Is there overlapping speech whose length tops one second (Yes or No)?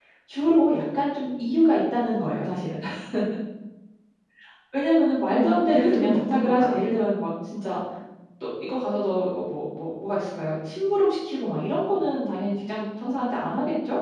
Yes